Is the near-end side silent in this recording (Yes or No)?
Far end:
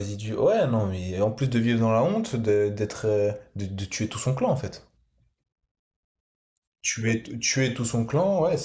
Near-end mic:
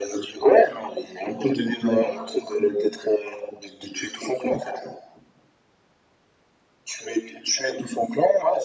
Yes